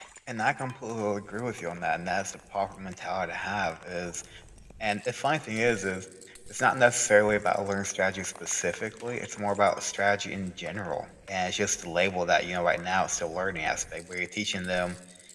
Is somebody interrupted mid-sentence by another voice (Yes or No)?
No